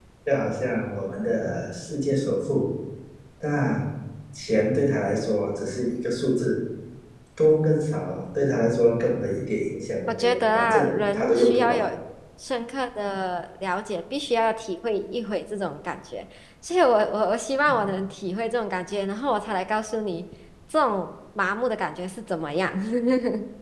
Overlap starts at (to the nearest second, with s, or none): 10 s